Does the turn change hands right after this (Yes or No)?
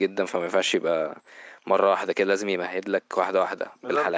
Yes